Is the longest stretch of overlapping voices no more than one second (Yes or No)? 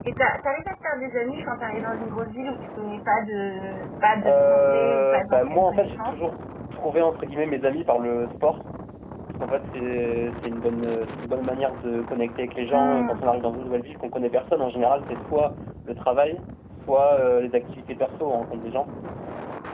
No